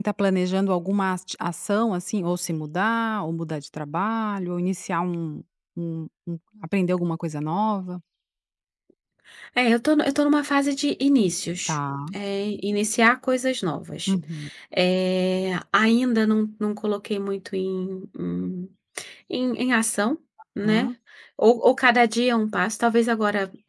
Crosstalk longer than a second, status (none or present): none